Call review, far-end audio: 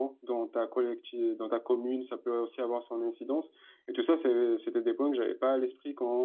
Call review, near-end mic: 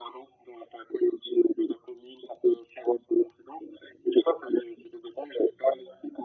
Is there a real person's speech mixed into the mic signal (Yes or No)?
No